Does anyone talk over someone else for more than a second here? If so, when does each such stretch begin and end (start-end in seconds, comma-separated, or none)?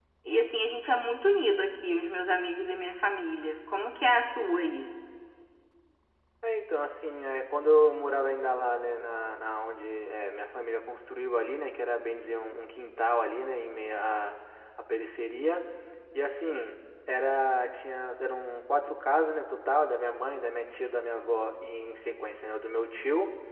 none